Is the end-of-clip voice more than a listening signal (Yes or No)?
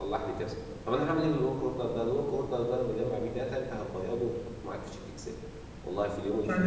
Yes